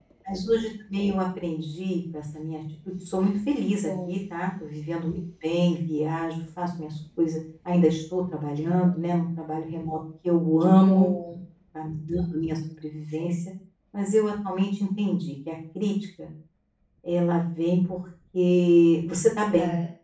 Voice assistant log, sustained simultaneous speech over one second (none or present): none